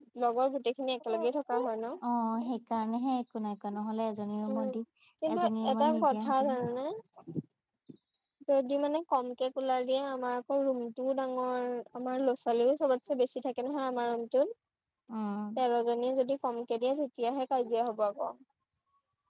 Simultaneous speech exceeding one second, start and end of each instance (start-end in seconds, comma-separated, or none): 5.4-6.6